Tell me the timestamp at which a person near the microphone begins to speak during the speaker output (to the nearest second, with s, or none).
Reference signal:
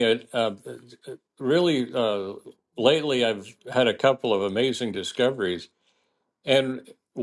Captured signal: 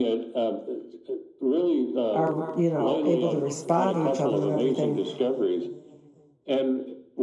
2 s